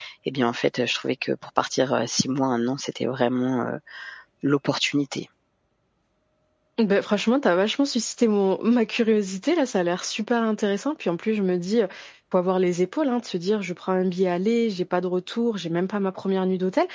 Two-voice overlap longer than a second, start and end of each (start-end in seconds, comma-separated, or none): none